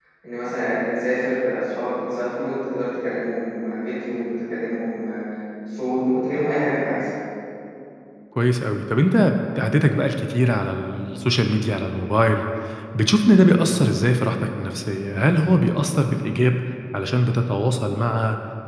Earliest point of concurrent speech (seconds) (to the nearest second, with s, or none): none